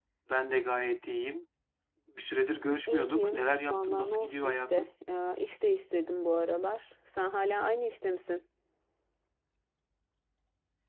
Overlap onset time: 2.9 s

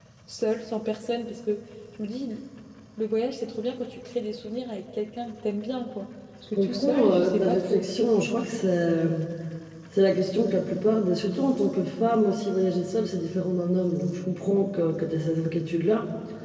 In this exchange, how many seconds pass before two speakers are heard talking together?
6.6 s

